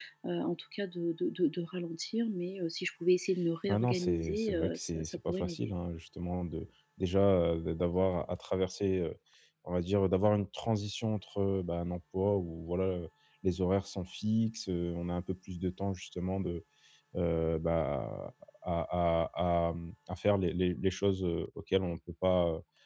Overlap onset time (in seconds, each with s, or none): 3.6 s